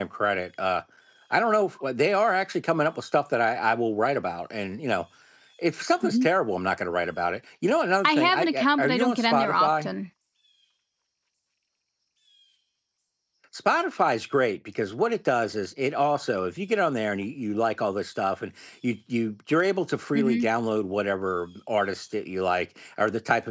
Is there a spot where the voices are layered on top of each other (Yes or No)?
Yes